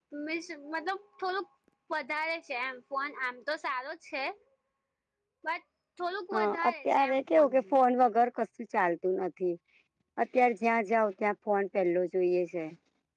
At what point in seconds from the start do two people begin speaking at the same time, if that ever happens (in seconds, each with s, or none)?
6.3 s